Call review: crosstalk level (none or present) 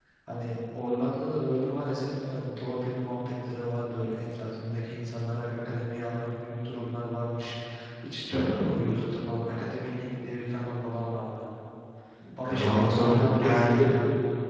present